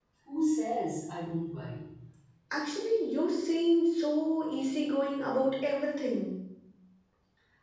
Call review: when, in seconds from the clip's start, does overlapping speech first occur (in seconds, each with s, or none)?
none